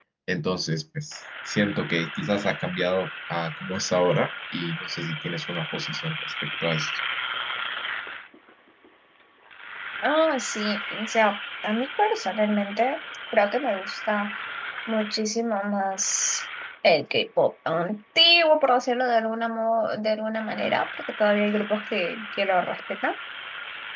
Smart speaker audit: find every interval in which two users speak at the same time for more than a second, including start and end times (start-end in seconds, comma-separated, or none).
none